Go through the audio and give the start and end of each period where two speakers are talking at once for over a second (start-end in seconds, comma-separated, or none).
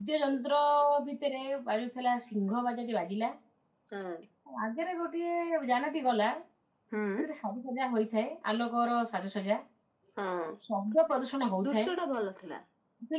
none